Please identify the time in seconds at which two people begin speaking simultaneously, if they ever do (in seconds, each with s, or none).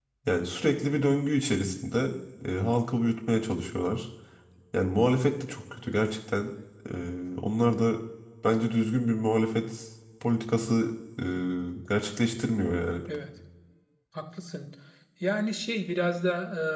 none